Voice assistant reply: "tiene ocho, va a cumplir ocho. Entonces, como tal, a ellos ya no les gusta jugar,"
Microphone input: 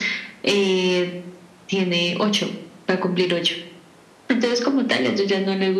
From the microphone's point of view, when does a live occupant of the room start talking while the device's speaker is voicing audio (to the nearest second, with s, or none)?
none